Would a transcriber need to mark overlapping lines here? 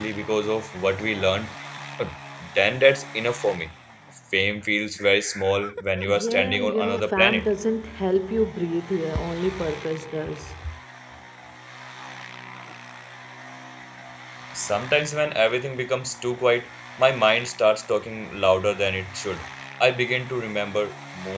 Yes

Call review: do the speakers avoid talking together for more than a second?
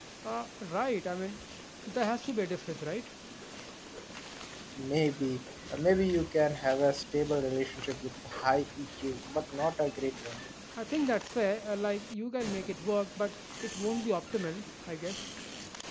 Yes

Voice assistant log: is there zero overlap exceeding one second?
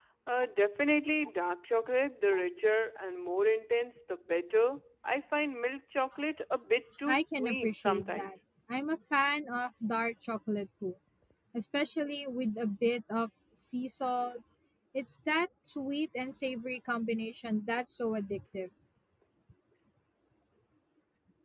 No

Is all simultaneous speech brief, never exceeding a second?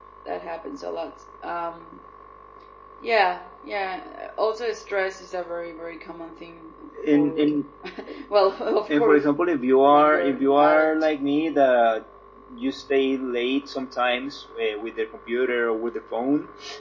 No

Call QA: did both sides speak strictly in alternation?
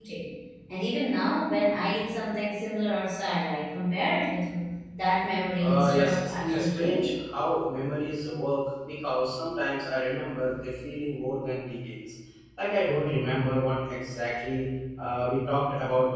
No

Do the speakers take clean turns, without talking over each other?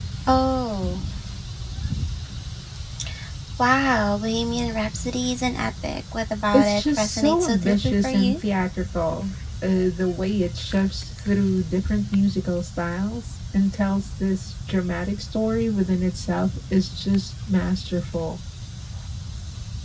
No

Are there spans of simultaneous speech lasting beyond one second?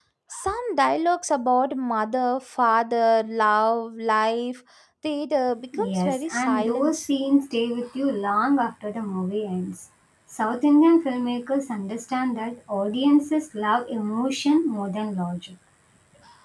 Yes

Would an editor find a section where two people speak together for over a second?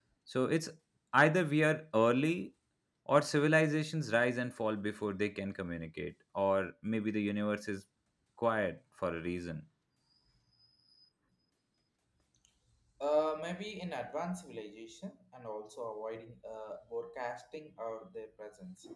No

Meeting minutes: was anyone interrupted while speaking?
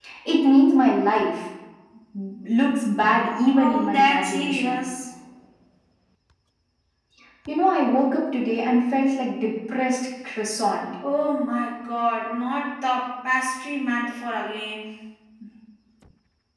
Yes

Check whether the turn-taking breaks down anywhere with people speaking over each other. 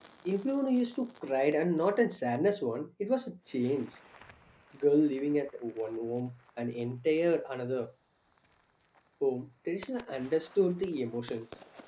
No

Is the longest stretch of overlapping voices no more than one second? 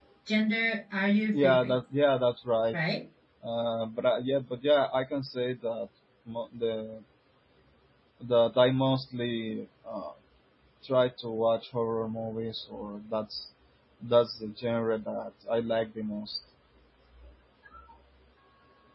Yes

